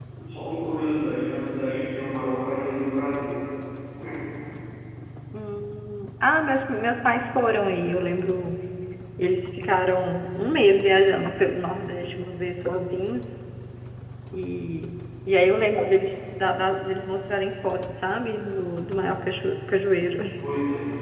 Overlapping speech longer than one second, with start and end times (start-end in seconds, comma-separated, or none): none